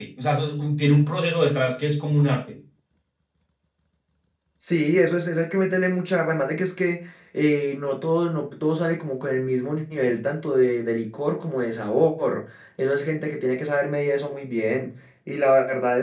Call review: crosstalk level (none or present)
none